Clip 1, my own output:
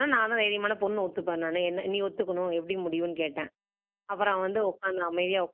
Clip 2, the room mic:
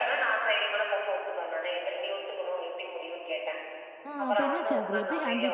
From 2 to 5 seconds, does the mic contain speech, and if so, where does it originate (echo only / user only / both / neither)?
both